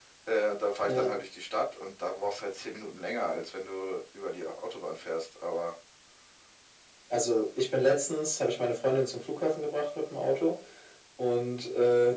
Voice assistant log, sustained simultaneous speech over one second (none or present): none